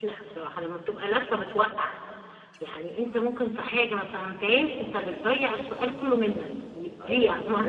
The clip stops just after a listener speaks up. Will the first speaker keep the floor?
No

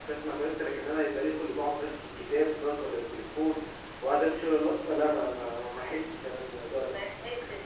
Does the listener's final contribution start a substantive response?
Yes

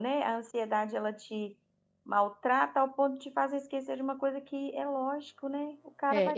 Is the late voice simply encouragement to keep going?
No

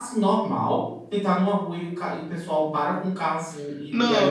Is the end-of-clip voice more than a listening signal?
Yes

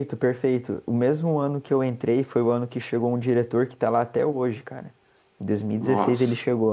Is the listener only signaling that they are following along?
Yes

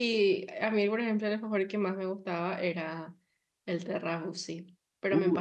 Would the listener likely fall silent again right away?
No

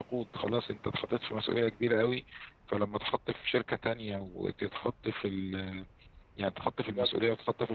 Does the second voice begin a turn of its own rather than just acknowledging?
No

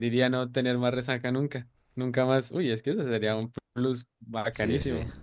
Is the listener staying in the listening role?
No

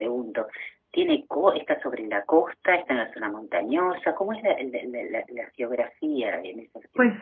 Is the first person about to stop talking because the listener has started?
Yes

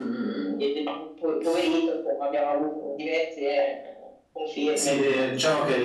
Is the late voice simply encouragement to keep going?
No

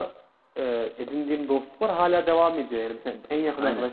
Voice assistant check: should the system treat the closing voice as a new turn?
No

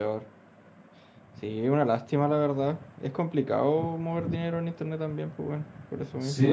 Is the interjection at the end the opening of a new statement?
Yes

